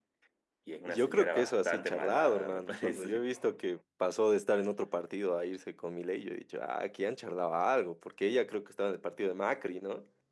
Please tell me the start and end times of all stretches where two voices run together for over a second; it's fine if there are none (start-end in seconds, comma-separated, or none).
0.8-3.4